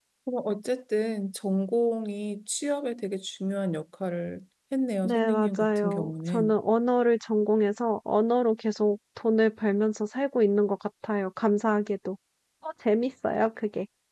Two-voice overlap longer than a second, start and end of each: 5.0-6.5

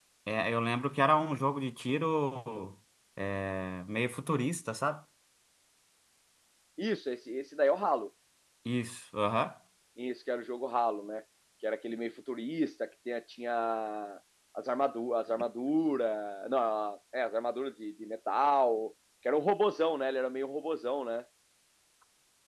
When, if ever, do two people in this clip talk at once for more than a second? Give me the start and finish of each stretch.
none

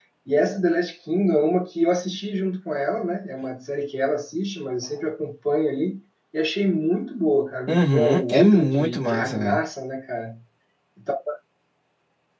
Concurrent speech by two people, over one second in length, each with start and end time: 7.7-9.6

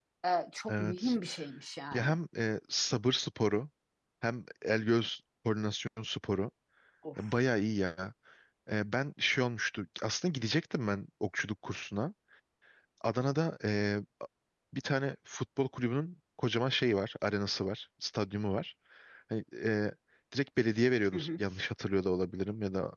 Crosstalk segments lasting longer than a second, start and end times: none

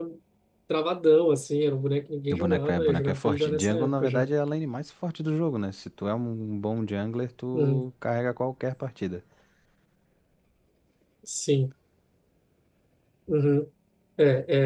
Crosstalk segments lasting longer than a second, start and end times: 2.3-4.3

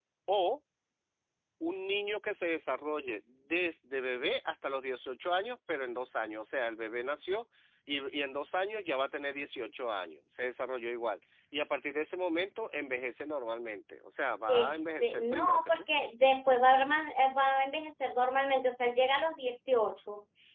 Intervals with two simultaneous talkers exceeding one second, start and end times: 14.5-15.8

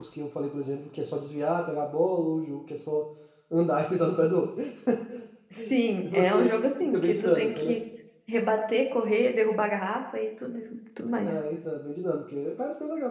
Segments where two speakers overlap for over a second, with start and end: 6.1-7.7

